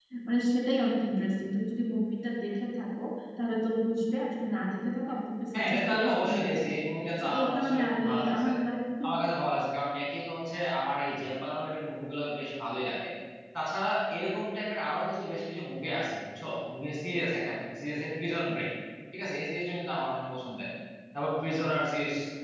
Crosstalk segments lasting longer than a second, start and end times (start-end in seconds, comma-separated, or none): 5.6-6.8, 7.2-8.5